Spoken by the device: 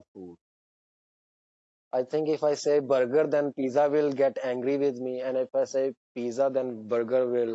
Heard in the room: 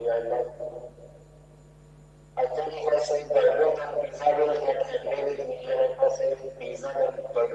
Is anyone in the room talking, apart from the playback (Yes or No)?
No